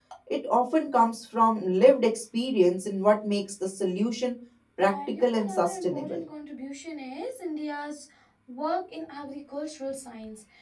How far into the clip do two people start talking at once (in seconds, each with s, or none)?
4.8 s